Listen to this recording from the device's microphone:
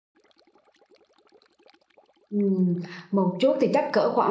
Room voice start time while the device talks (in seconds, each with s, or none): 2.3 s